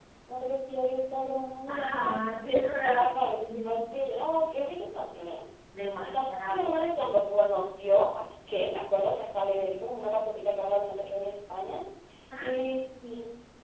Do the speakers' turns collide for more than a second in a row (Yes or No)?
Yes